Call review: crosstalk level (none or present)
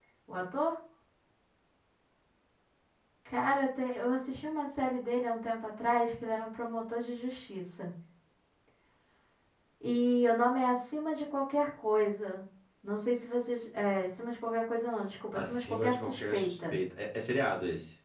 present